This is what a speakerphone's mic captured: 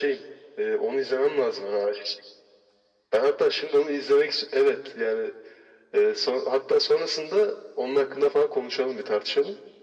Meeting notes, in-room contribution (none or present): none